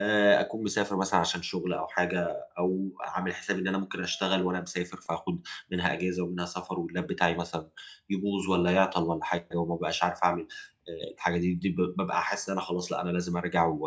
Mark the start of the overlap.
none

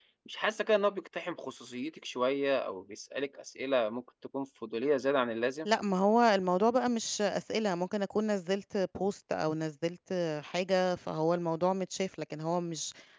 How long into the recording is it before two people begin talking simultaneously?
none

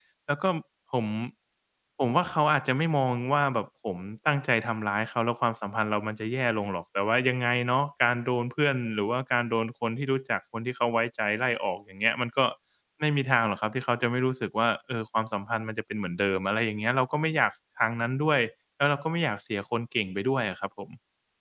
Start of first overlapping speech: none

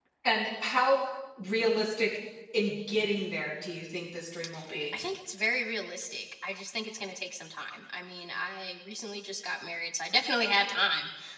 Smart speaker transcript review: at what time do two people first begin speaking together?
none

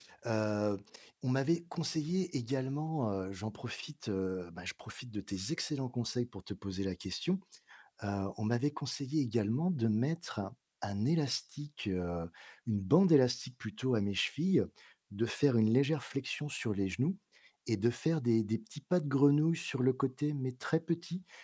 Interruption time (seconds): none

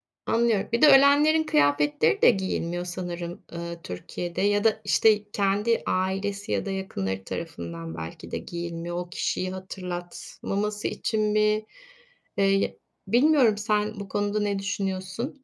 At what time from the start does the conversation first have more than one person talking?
none

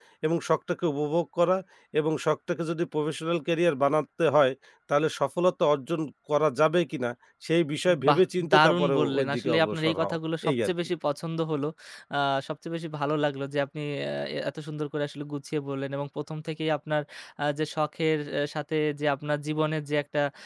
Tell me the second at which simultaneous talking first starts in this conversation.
7.9 s

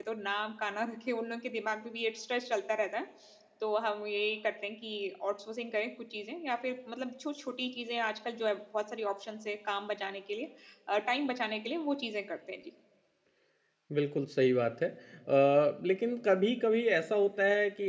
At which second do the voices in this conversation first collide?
none

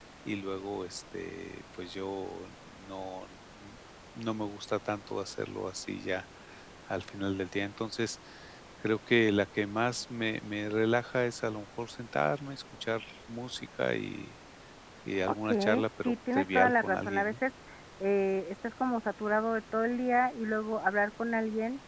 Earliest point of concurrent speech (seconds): 15.3 s

